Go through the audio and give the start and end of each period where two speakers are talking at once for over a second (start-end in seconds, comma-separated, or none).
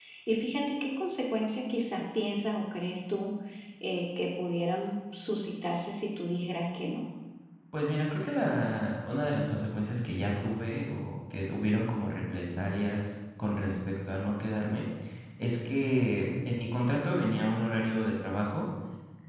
none